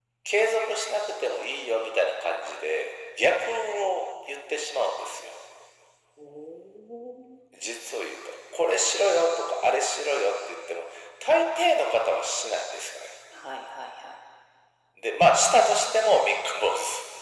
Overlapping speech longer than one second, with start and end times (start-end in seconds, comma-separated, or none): none